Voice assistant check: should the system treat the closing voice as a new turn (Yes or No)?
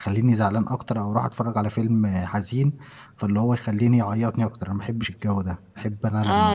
Yes